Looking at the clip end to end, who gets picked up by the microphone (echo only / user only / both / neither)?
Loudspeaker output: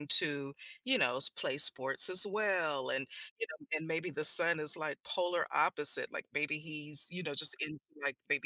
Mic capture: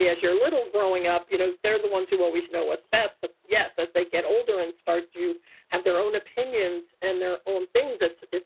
user only